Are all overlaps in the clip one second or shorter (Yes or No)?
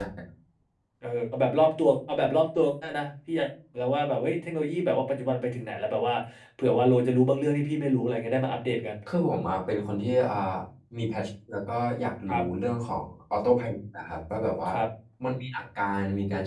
Yes